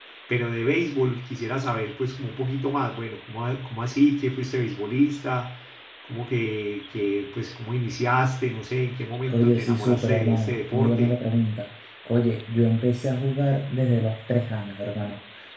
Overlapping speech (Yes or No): Yes